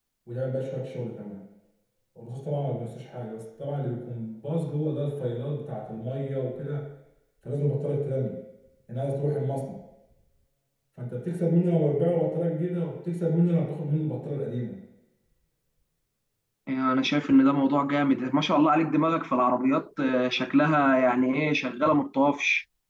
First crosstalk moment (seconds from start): none

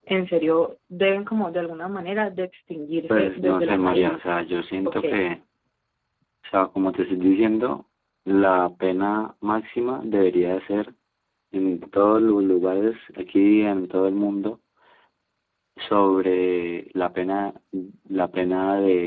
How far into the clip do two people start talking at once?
3.1 s

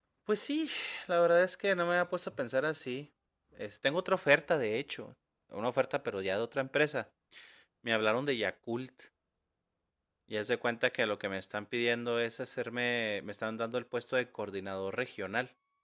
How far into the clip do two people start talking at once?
none

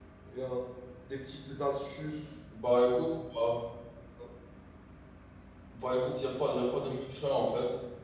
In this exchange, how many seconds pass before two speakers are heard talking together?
none

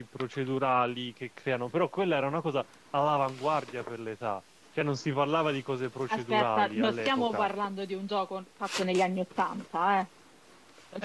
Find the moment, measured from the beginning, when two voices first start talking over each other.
6.1 s

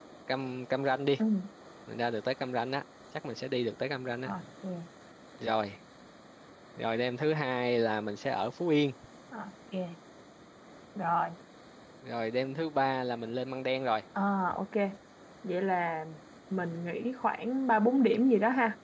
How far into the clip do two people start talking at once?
none

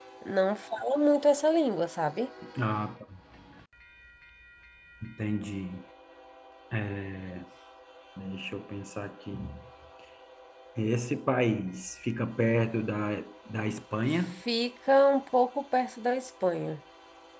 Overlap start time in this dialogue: none

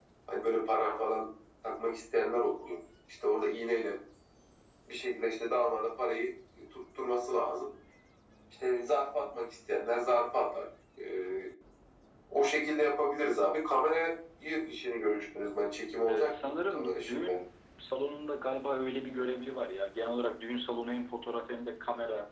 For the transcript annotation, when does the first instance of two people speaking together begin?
16.1 s

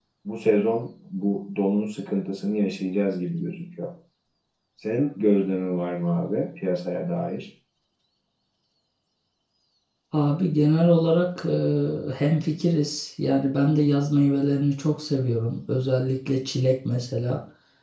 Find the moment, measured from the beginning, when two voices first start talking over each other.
none

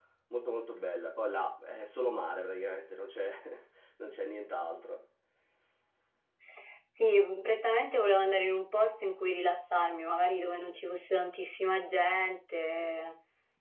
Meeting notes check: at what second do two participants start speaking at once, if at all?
none

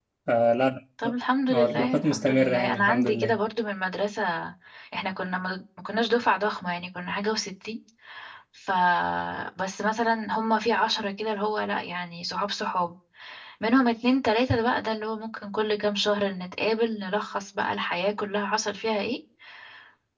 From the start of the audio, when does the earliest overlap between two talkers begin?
1.5 s

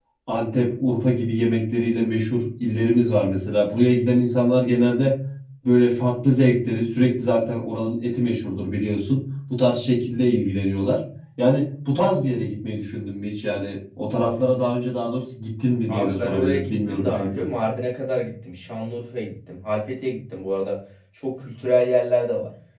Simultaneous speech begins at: 15.9 s

